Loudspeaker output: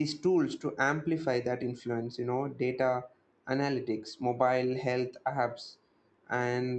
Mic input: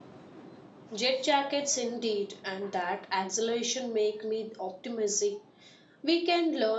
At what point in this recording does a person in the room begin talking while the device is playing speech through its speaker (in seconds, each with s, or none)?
1.0 s